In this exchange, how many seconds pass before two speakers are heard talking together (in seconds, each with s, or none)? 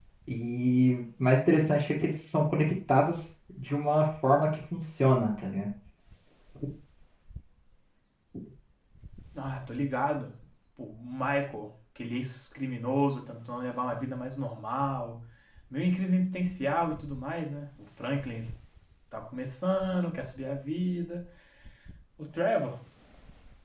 none